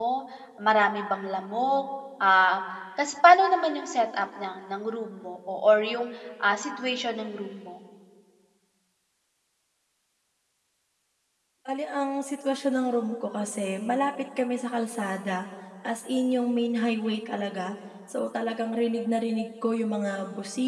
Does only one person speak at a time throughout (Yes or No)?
Yes